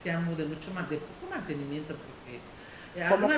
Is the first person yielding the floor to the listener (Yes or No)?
No